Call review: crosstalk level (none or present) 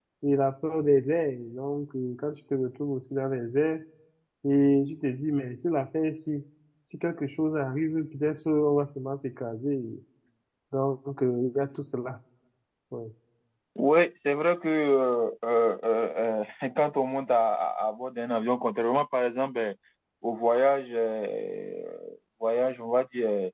none